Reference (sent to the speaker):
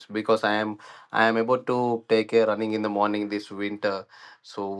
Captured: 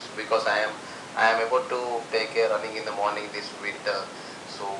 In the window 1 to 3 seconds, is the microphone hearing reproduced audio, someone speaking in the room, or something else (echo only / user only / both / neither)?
echo only